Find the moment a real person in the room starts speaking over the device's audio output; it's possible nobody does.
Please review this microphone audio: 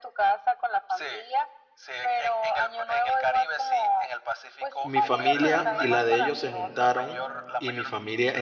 4.8 s

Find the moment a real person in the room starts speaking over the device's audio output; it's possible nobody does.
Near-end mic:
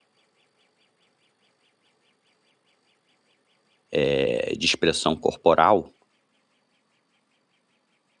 3.9 s

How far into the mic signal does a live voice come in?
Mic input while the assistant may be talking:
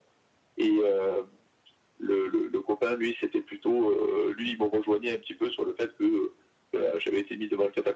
none

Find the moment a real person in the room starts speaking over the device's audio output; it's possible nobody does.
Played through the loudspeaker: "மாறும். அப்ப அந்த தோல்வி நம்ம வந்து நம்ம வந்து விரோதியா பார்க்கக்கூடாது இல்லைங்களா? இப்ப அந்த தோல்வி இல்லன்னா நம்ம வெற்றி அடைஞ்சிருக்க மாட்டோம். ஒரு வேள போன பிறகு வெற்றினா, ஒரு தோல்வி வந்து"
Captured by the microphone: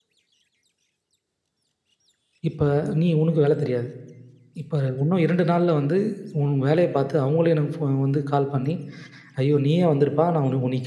2.5 s

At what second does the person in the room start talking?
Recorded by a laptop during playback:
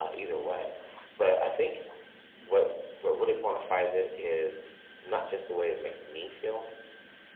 none

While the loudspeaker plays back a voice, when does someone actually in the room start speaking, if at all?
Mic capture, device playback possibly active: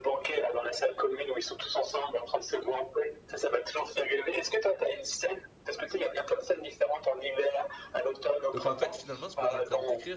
8.5 s

